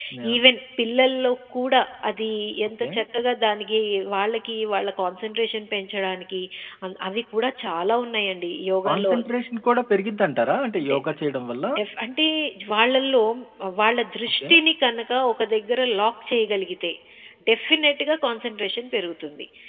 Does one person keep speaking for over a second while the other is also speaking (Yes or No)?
No